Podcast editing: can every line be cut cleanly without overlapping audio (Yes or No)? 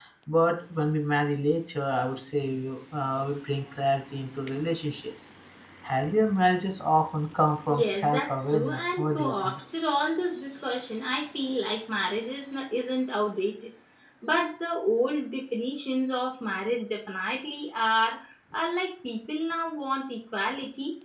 No